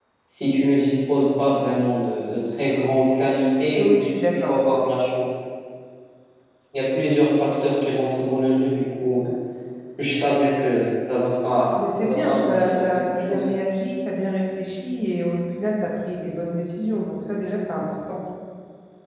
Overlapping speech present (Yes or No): Yes